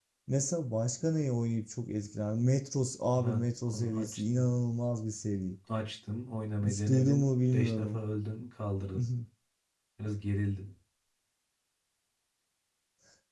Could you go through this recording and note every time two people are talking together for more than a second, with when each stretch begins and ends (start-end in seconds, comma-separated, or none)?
3.2-4.5, 6.6-8.0